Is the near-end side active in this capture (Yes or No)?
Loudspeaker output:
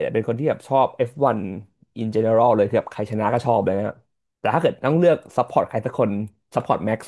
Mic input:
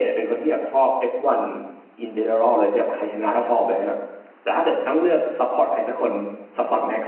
No